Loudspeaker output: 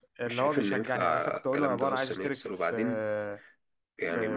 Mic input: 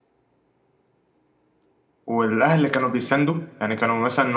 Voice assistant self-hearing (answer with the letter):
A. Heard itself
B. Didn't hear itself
B